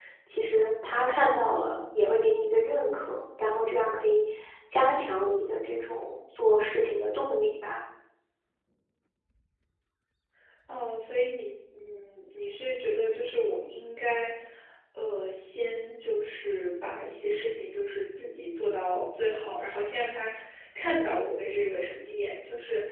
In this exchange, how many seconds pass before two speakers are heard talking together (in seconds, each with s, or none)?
none